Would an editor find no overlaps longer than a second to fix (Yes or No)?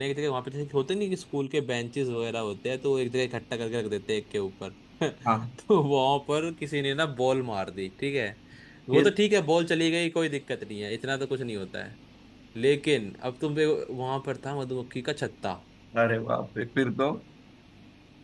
Yes